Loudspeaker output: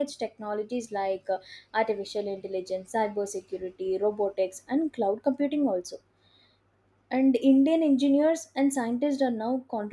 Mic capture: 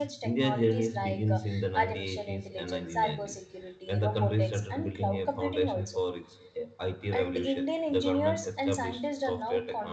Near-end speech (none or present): present